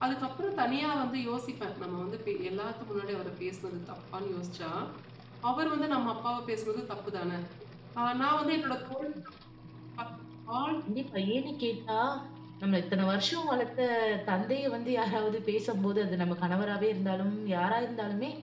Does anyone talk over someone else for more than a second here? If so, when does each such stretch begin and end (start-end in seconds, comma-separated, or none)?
none